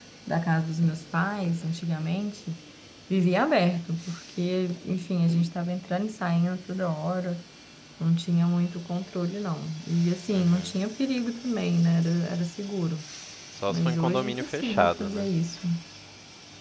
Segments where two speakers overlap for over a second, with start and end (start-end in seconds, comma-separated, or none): 13.7-15.2